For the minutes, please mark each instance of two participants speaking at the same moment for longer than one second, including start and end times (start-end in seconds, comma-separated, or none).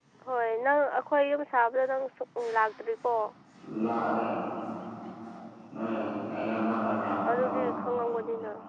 none